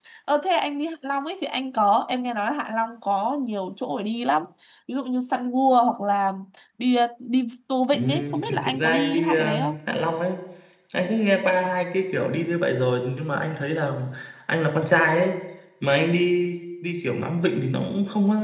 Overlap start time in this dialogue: 7.9 s

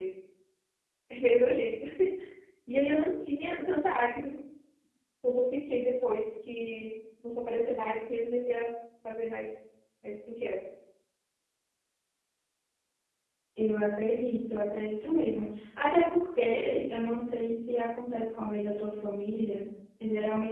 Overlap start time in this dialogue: none

